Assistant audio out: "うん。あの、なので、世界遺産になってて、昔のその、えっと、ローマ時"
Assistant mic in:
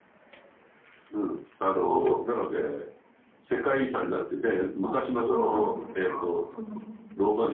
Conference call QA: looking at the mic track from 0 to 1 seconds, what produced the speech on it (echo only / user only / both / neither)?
neither